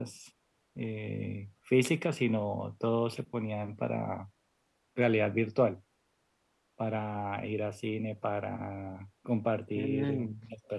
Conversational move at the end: listening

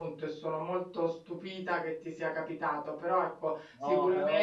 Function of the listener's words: listening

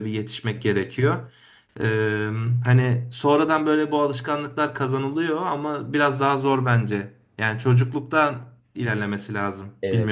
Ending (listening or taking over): taking over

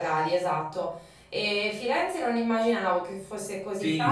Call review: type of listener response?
taking over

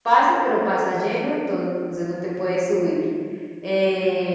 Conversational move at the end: listening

